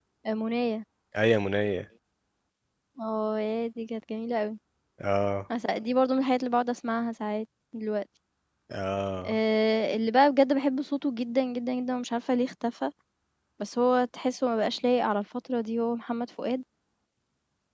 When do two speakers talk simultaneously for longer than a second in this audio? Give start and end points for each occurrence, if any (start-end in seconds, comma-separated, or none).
none